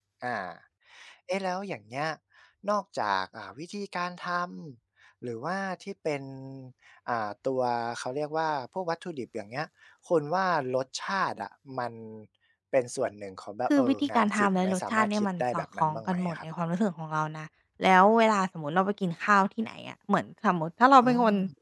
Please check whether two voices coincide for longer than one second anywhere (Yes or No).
Yes